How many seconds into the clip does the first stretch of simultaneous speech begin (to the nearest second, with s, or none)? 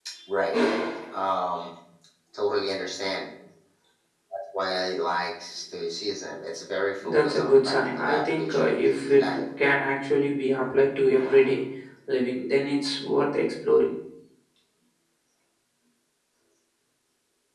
7 s